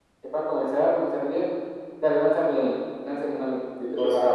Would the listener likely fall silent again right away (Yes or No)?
No